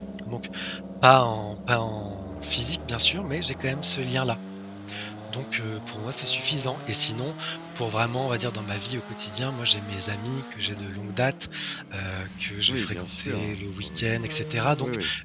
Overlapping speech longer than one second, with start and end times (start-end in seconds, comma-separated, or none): 12.7-14.0